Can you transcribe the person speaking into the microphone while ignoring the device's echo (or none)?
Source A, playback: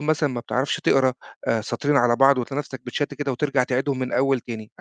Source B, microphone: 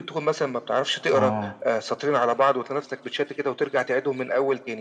آه،